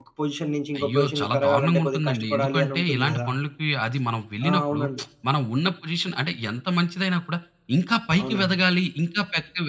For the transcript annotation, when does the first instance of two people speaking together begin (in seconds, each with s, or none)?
0.8 s